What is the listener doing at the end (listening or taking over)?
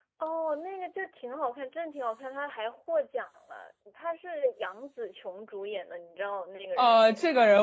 taking over